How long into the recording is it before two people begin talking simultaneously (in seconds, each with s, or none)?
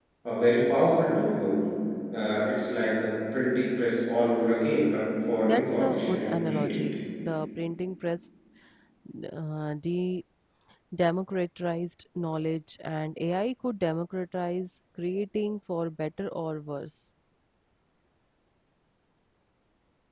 5.4 s